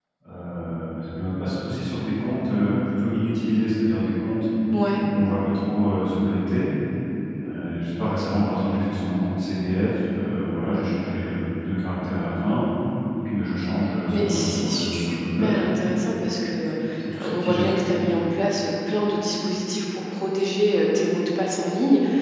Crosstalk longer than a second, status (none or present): present